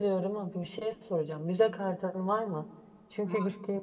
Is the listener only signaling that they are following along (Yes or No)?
Yes